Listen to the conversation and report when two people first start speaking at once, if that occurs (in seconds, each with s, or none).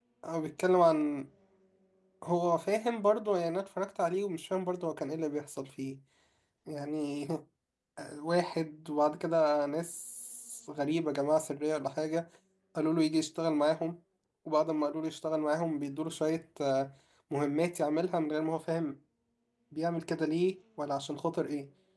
none